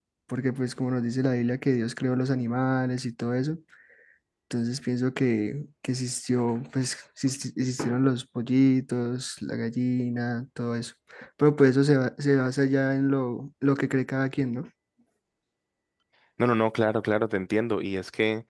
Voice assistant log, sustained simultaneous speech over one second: none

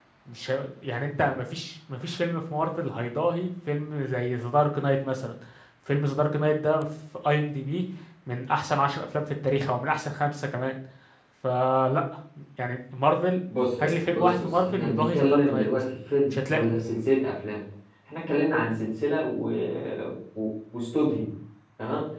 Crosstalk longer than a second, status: present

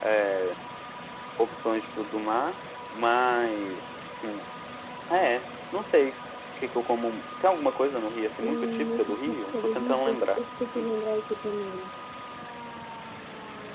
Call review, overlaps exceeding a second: present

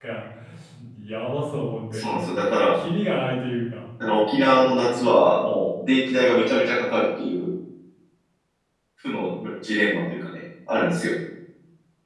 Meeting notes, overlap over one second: none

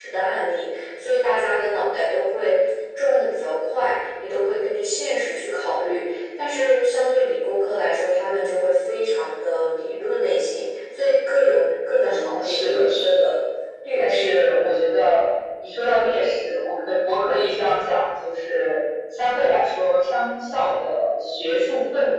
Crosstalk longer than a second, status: present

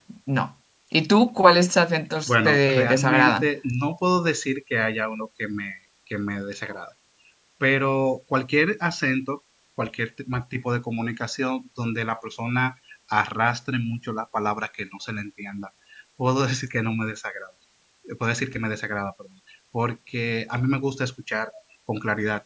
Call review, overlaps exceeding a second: present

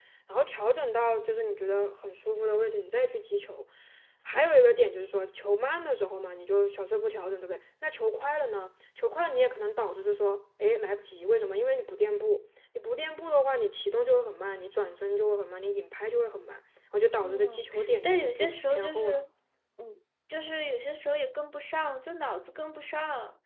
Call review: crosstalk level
present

